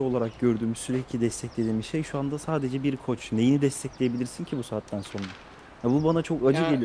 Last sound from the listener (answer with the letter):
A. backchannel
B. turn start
A